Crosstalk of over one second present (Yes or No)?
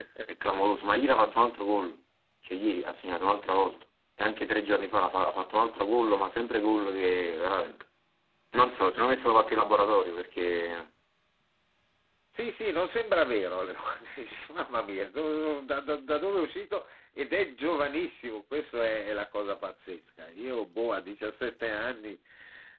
No